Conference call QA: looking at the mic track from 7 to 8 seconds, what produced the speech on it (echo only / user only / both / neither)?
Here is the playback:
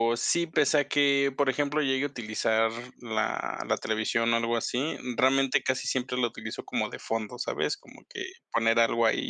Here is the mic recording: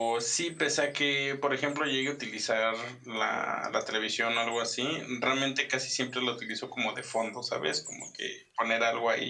echo only